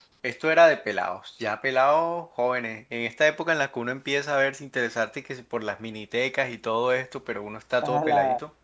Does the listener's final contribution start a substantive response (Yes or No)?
Yes